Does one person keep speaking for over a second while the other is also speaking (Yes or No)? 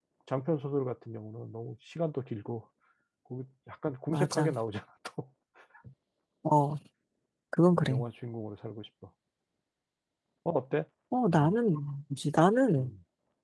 No